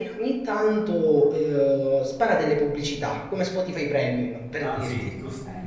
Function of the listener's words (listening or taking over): taking over